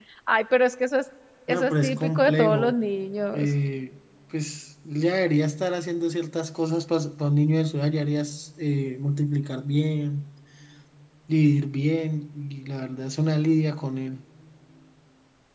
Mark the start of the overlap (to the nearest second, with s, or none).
1 s